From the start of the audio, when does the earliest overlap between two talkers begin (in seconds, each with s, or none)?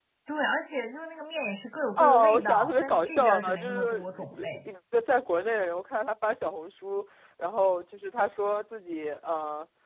2.0 s